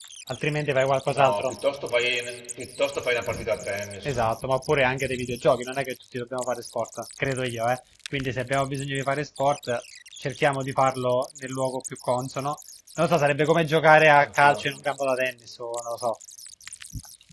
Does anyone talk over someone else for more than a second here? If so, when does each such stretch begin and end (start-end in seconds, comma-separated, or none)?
none